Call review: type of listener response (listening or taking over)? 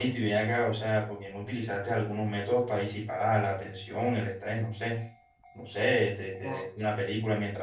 listening